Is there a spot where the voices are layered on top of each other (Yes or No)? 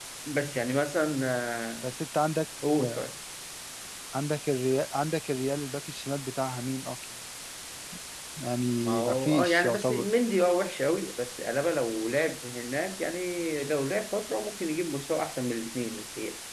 Yes